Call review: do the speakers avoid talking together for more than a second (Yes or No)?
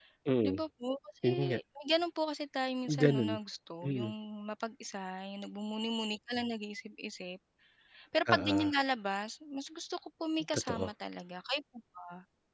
Yes